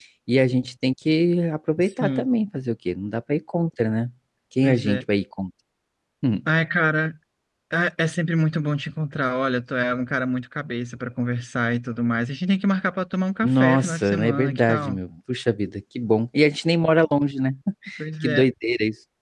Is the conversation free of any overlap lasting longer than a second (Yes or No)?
No